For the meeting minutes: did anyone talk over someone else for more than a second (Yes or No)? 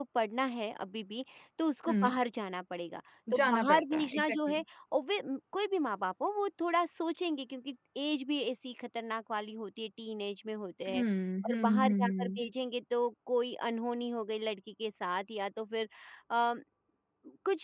Yes